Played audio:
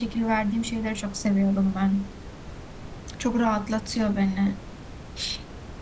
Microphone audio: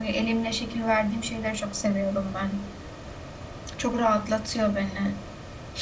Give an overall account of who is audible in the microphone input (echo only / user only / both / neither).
echo only